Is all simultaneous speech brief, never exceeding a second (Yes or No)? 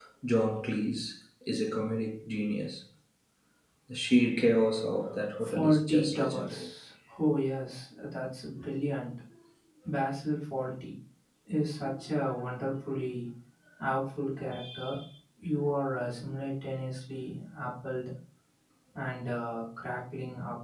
No